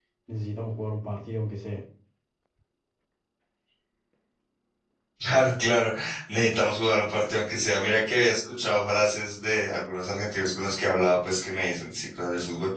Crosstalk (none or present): none